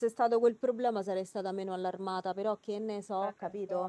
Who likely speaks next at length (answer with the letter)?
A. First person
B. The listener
B